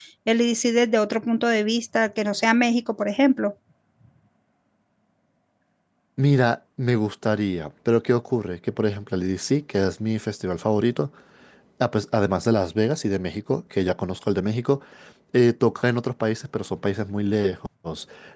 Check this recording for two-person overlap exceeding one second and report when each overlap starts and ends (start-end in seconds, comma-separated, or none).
none